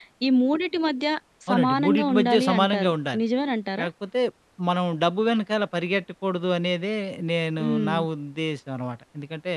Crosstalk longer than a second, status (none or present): present